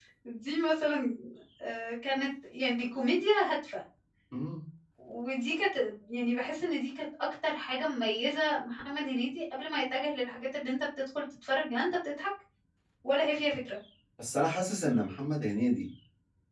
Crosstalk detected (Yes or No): No